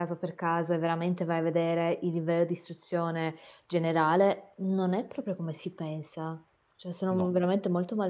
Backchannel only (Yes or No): Yes